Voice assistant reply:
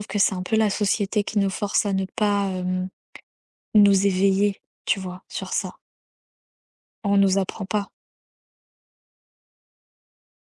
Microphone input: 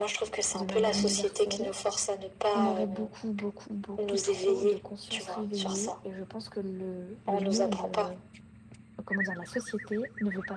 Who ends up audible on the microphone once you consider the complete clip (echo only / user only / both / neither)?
both